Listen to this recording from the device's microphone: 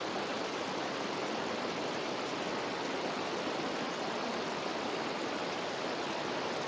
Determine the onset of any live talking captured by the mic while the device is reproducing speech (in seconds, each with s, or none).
none